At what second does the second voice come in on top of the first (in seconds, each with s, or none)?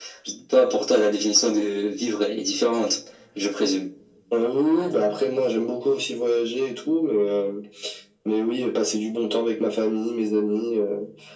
none